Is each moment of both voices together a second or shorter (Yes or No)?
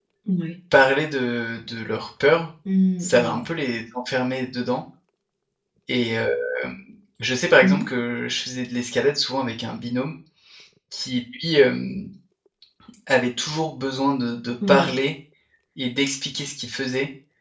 Yes